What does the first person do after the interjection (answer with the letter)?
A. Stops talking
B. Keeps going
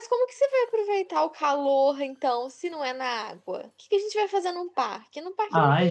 A